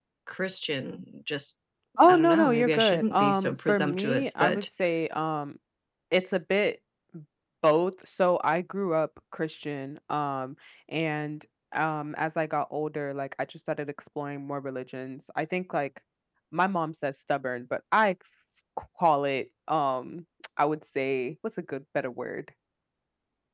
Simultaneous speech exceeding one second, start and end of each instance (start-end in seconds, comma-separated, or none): 2.1-4.7